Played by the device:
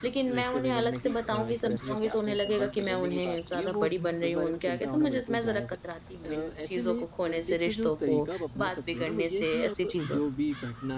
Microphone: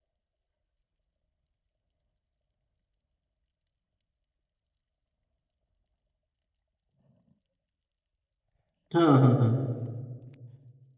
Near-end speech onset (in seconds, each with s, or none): 8.9 s